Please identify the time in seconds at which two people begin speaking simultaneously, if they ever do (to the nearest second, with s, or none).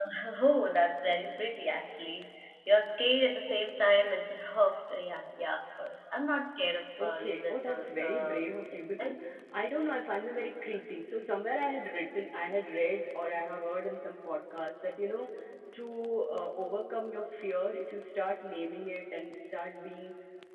7 s